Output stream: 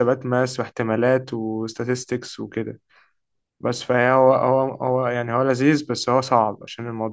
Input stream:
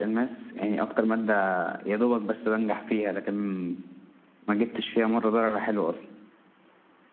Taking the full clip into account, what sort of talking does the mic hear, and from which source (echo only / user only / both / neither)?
user only